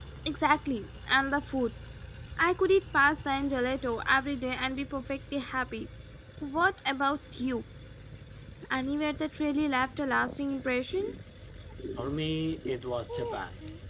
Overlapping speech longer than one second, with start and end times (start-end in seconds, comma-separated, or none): none